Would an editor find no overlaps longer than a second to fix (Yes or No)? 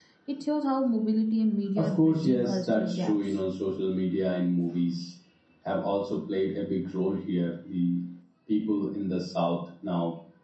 No